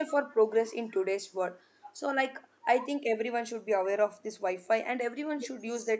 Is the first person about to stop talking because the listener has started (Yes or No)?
No